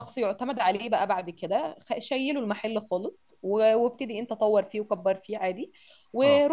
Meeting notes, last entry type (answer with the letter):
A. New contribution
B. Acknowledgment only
B